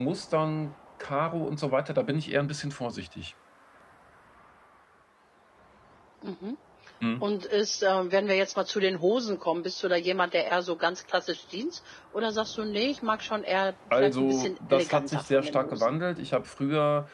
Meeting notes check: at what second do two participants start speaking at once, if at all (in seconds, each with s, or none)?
13.9 s